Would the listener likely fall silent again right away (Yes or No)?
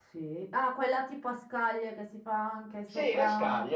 No